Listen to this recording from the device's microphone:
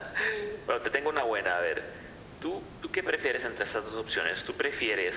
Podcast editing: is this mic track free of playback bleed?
No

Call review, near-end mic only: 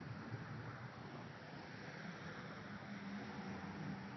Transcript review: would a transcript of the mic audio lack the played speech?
Yes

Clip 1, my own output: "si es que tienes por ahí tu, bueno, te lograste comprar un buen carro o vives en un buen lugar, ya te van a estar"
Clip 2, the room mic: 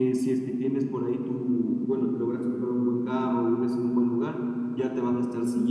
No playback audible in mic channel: No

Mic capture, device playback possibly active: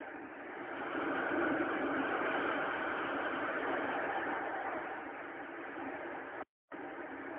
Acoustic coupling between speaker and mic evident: No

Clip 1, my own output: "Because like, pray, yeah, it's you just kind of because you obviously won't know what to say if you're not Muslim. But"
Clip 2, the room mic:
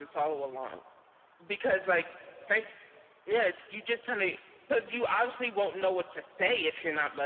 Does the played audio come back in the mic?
Yes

